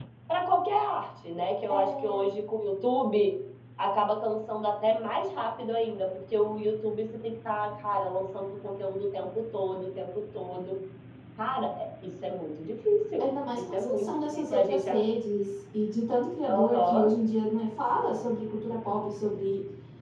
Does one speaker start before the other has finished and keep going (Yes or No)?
Yes